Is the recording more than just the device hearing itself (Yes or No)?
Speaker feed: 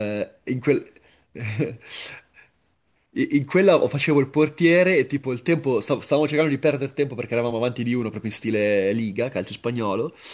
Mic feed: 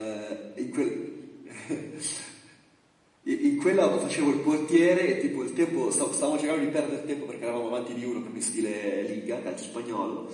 No